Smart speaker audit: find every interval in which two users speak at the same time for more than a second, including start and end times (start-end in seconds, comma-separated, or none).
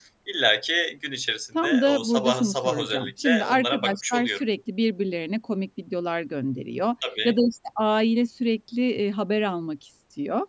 1.6-4.4